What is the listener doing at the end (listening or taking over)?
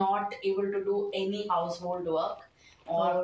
listening